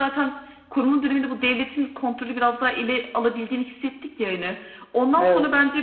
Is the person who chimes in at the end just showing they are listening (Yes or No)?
Yes